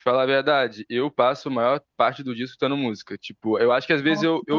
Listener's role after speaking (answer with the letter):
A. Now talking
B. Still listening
B